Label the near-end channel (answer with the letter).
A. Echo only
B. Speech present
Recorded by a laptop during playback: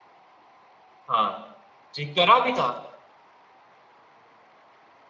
B